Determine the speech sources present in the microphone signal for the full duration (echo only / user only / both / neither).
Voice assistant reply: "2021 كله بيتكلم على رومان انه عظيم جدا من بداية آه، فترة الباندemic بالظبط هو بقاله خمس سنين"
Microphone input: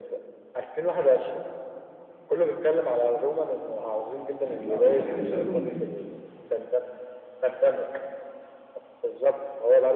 both